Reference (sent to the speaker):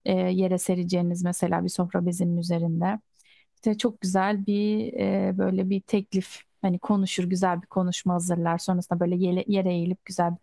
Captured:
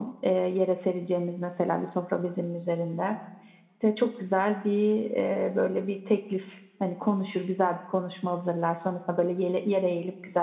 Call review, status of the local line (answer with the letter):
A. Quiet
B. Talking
A